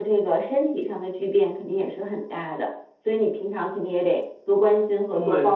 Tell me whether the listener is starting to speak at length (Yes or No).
Yes